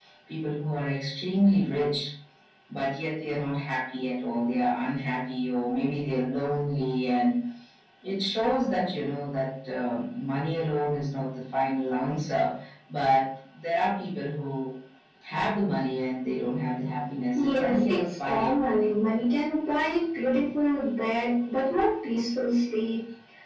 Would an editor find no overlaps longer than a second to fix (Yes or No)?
No